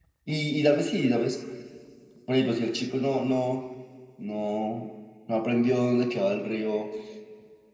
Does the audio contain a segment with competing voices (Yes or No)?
No